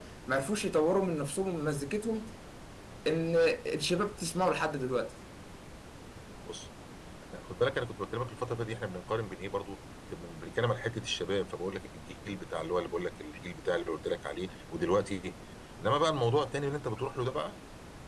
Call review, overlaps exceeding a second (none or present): none